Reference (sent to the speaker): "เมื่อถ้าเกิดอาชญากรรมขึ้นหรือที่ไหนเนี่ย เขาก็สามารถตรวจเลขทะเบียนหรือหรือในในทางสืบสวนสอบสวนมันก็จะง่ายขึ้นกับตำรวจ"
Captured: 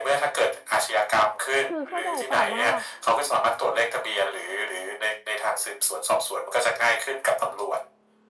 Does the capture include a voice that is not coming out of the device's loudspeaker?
Yes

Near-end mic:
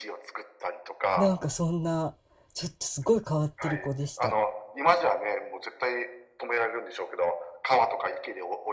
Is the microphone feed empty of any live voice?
No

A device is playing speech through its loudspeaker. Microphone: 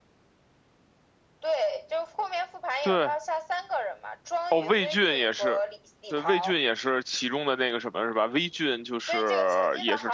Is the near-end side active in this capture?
Yes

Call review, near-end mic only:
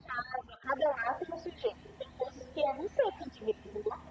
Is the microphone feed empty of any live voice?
Yes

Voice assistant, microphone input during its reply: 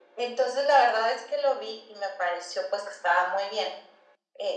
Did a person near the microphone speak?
No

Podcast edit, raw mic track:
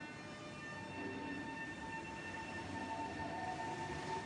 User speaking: No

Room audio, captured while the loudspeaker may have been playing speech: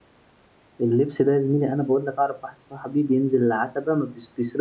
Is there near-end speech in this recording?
Yes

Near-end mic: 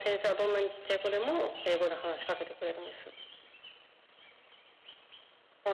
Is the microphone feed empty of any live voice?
Yes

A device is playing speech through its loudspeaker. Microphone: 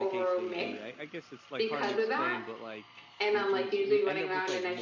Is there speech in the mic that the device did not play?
Yes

